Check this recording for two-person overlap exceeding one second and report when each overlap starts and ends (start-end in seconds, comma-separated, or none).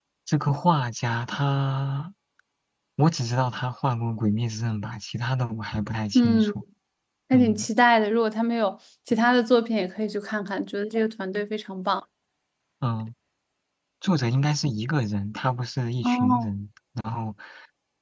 none